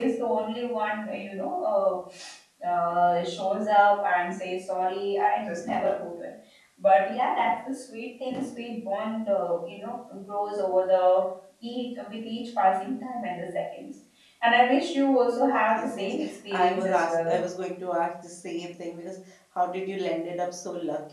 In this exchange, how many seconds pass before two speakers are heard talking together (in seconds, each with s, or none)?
15.8 s